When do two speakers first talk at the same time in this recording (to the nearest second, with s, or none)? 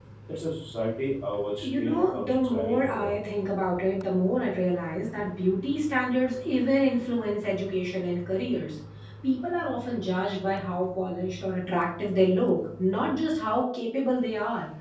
2 s